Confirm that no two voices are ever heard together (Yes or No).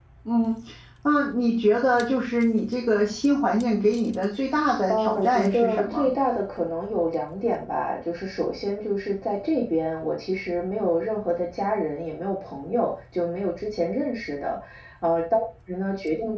No